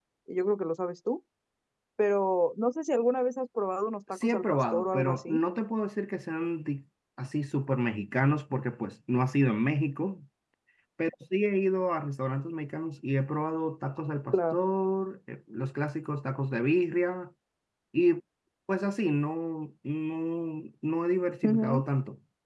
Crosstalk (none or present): present